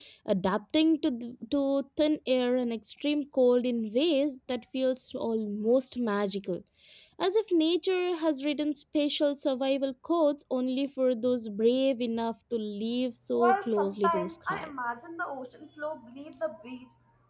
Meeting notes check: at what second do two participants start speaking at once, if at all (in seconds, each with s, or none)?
13.3 s